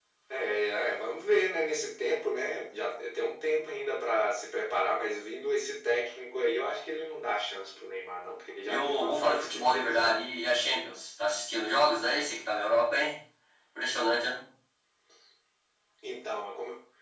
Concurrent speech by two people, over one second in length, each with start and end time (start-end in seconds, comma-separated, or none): 8.7-10.1